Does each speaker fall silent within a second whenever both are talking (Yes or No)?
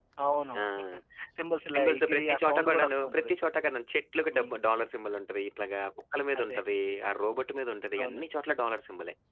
No